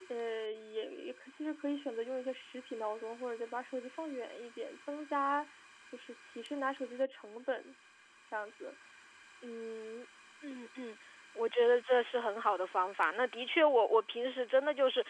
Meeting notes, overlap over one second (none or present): none